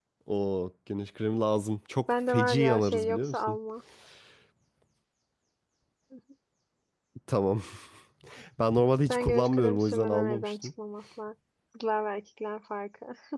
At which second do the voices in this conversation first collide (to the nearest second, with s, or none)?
2 s